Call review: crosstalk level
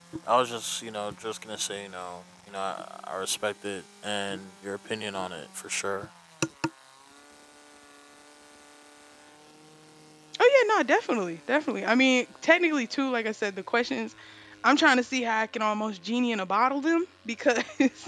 none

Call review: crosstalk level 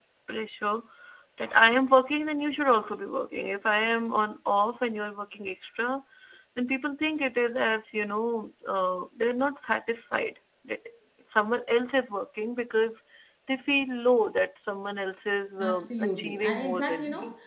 present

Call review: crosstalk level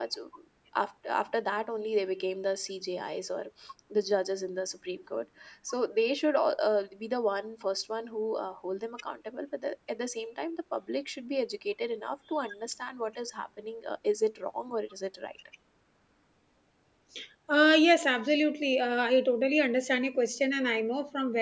none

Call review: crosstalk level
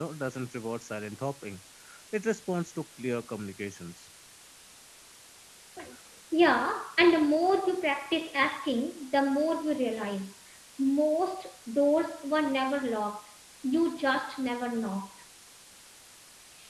none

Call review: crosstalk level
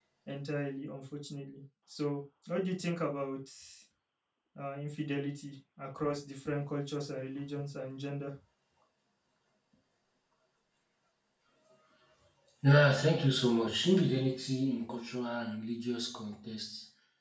none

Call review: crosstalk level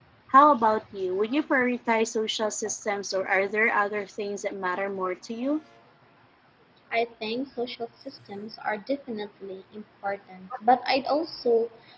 none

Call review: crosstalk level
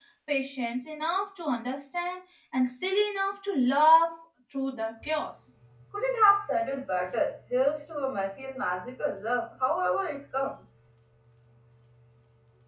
none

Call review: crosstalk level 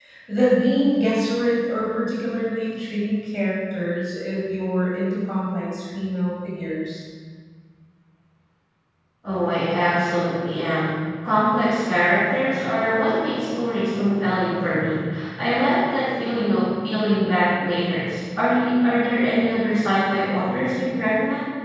none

